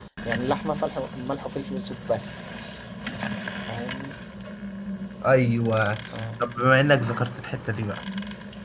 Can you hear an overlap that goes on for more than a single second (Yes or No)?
No